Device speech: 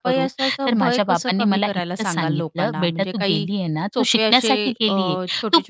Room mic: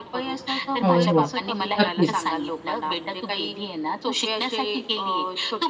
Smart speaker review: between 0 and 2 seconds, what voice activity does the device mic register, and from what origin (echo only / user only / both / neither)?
both